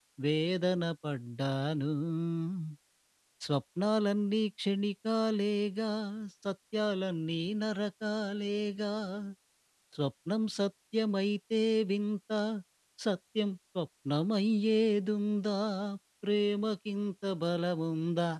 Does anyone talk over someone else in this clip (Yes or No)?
No